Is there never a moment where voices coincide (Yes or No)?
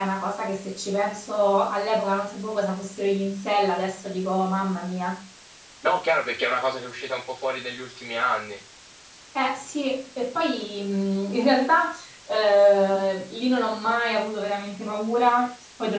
Yes